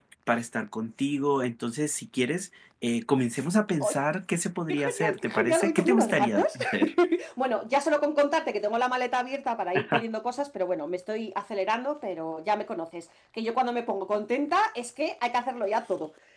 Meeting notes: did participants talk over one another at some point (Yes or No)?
Yes